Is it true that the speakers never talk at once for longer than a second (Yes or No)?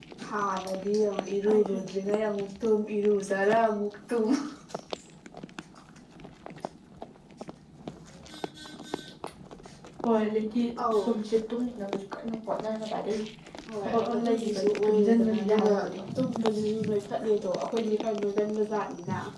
No